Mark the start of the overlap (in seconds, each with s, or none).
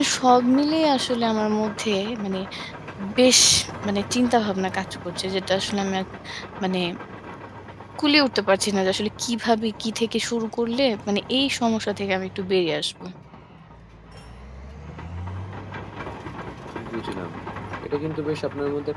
none